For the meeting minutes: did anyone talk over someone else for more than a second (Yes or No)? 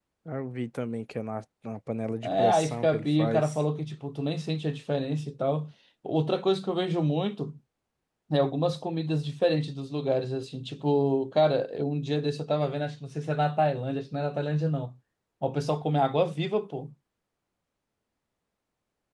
Yes